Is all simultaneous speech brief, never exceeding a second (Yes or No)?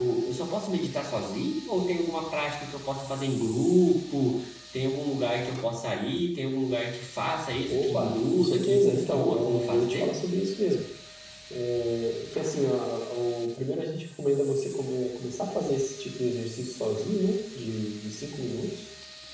No